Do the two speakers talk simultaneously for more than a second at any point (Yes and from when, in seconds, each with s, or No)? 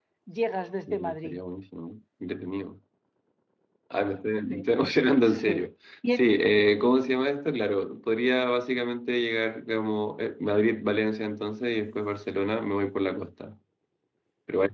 No